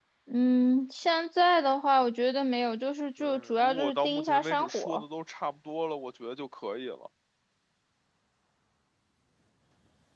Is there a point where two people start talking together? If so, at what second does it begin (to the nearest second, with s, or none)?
3 s